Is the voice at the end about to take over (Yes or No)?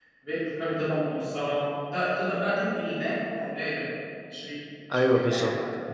Yes